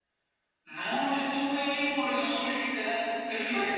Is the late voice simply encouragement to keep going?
No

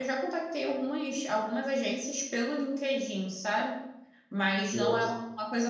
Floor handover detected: No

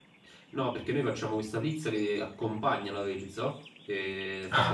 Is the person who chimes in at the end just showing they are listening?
Yes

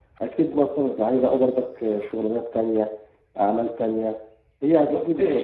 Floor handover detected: Yes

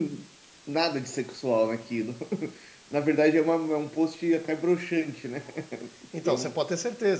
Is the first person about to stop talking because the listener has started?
Yes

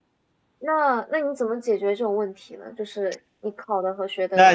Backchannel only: No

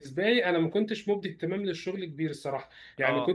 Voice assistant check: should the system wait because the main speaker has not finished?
Yes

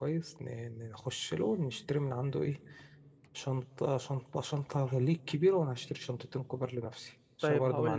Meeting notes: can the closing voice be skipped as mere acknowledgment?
No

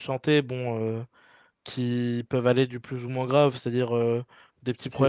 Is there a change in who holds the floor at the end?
No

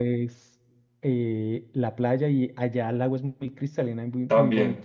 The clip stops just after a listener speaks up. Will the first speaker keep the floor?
No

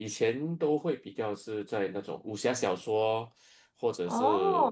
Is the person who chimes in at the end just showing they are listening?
Yes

